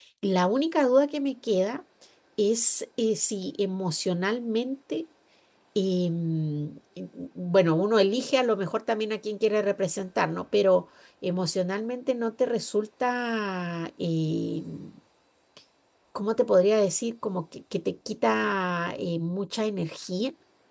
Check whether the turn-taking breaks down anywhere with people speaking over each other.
No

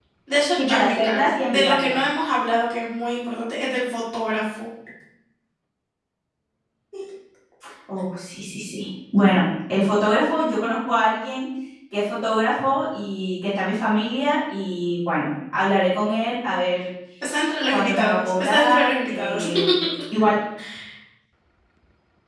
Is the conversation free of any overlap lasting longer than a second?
No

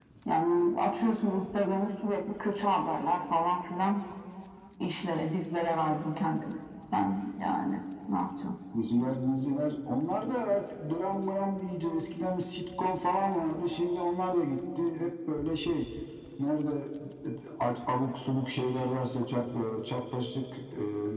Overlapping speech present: No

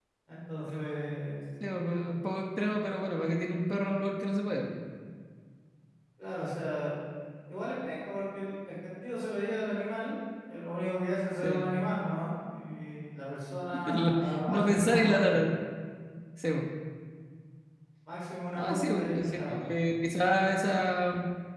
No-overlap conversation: No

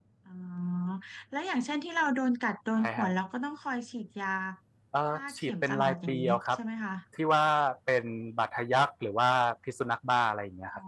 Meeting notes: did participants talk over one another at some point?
Yes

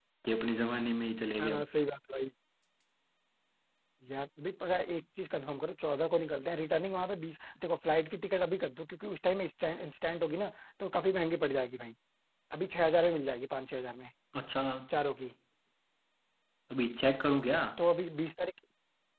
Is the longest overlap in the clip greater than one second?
No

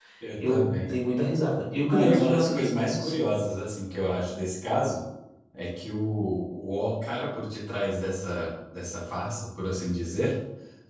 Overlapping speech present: Yes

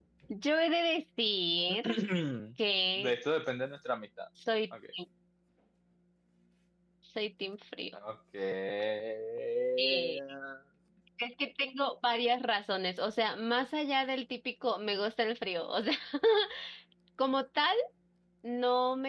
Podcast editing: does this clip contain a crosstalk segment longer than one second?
No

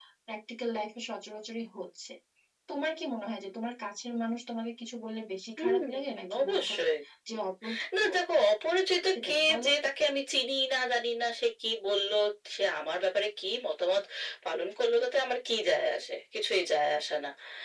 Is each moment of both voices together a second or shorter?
No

